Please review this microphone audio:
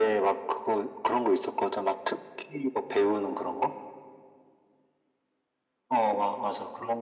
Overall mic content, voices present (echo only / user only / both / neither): echo only